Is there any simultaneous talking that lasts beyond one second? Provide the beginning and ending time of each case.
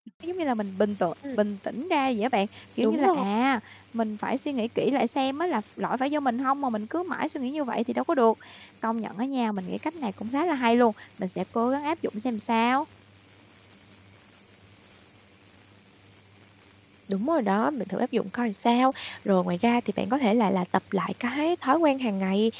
none

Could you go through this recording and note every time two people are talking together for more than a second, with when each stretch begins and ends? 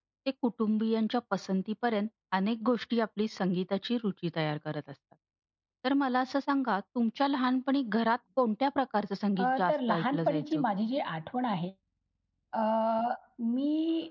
9.4-10.6

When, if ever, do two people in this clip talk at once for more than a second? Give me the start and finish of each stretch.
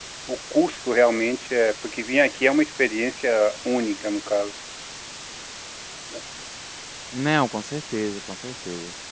none

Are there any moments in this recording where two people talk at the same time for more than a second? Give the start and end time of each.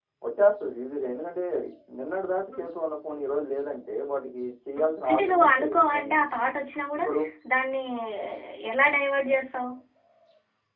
4.8-6.2

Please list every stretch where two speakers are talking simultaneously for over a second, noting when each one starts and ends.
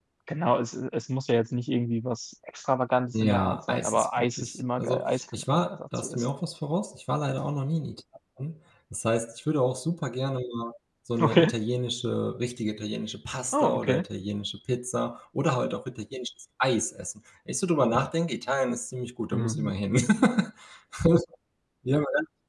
3.1-6.3

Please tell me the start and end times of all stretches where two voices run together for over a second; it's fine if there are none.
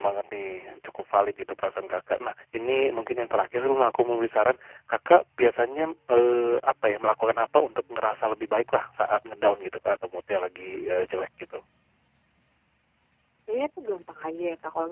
none

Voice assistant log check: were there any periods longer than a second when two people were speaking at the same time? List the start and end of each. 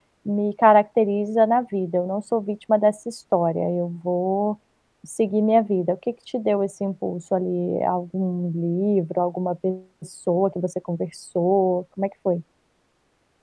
none

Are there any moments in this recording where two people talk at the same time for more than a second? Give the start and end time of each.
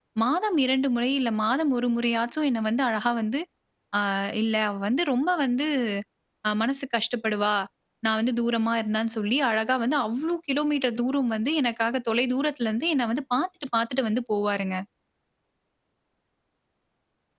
none

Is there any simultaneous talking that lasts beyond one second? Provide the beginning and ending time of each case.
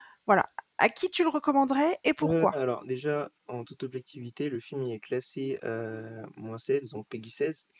none

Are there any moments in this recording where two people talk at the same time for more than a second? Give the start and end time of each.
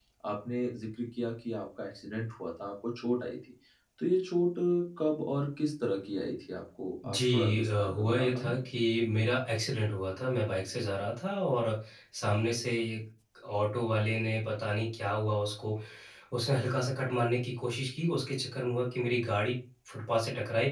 7.0-8.6

